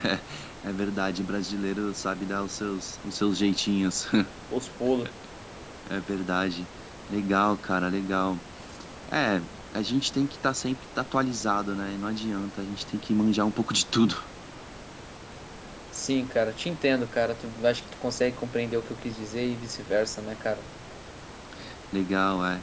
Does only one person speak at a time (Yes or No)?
Yes